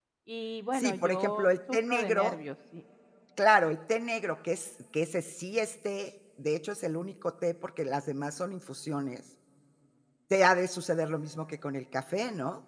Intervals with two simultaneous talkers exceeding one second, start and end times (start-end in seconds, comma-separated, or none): 0.7-2.3